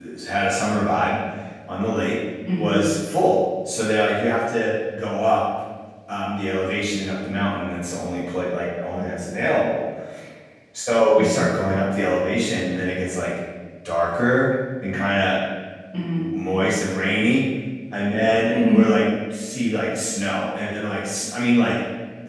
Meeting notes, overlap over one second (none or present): none